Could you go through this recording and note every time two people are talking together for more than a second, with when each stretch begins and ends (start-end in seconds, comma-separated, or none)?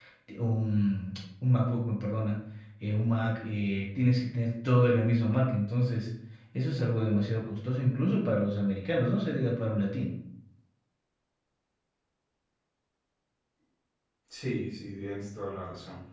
none